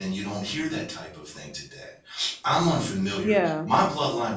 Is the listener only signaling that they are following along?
Yes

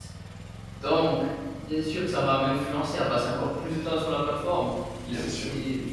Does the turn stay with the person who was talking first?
Yes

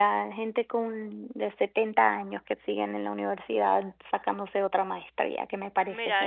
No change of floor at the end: No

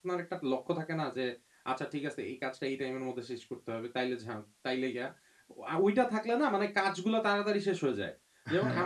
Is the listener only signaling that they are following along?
Yes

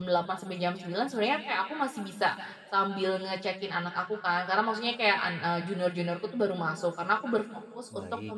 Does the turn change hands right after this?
No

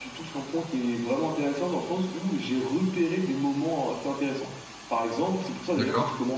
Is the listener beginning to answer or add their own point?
No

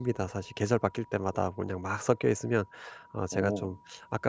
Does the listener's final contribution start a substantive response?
No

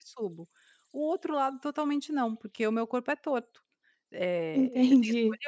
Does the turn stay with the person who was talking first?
Yes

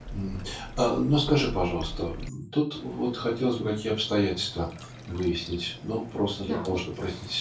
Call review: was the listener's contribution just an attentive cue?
Yes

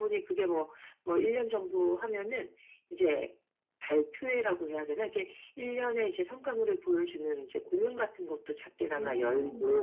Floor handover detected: No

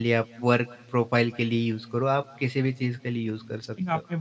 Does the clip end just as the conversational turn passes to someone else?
Yes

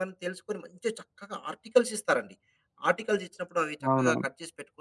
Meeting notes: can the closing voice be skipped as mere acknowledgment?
Yes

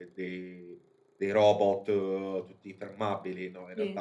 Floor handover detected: No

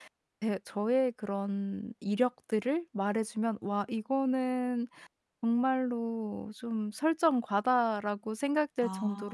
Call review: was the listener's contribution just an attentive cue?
Yes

